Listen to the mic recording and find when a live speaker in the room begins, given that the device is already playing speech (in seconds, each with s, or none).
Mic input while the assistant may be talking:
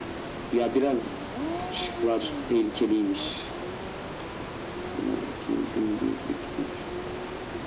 none